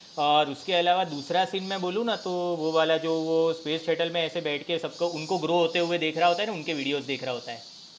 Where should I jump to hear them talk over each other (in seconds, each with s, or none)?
none